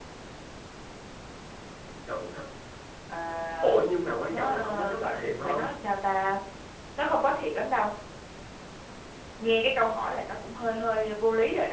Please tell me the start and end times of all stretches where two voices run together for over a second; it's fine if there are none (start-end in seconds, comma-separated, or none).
4.3-5.8